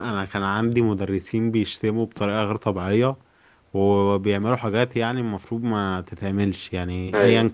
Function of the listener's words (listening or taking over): listening